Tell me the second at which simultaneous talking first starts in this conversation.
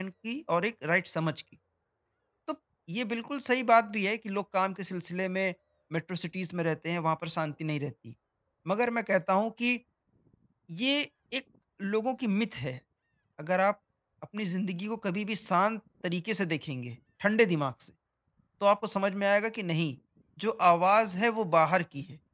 none

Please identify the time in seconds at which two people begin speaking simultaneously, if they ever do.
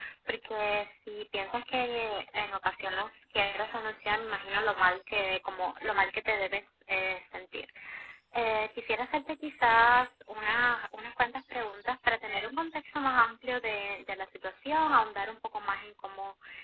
none

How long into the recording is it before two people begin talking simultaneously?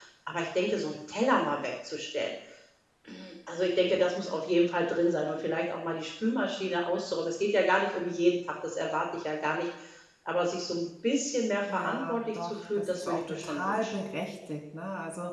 11.7 s

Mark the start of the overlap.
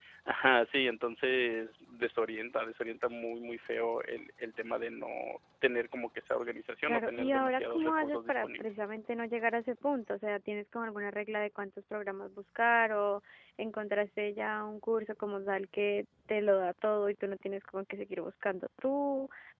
6.8 s

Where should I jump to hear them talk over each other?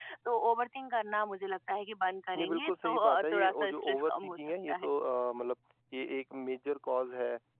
2.4 s

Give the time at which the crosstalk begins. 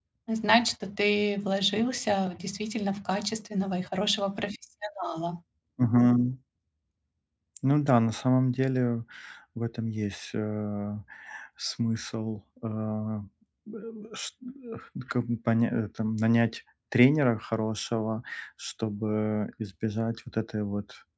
none

